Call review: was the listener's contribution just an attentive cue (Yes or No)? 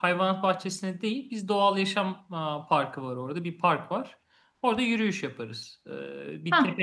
Yes